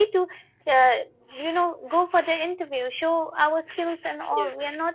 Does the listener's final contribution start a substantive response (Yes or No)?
No